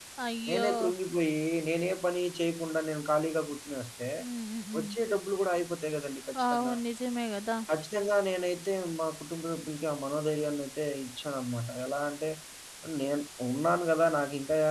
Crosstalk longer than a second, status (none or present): none